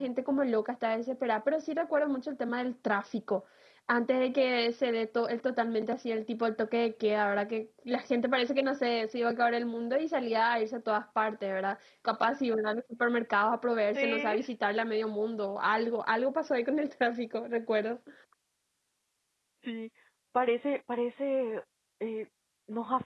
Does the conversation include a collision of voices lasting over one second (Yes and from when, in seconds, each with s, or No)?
No